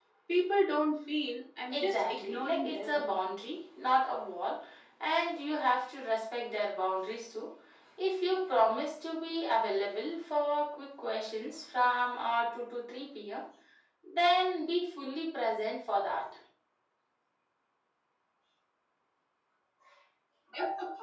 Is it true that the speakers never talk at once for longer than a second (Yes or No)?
No